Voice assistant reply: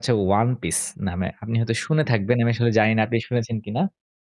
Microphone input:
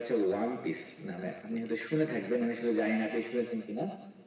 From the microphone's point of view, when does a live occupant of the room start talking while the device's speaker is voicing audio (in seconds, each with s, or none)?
none